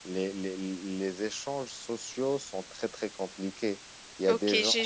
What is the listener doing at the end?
taking over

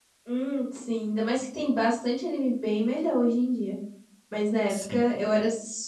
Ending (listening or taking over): listening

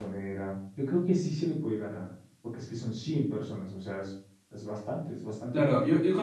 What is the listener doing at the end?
taking over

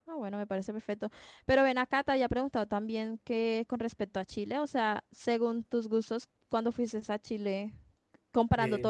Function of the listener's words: listening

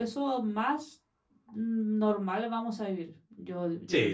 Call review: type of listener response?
taking over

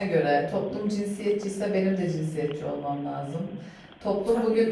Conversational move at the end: listening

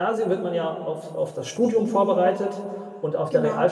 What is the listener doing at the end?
listening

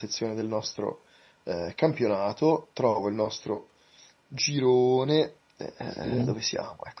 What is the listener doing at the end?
listening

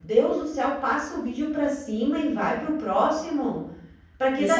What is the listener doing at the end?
taking over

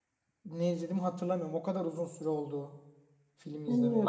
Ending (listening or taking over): taking over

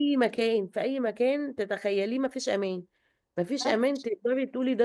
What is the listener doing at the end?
listening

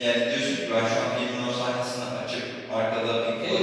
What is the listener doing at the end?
taking over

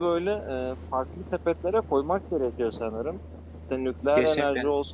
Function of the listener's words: listening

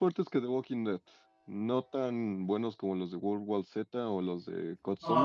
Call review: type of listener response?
taking over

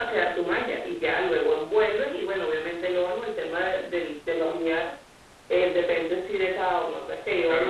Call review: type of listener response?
taking over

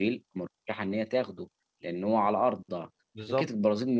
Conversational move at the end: listening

